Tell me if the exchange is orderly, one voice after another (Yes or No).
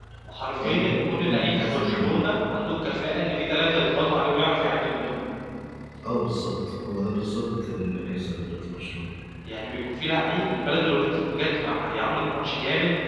No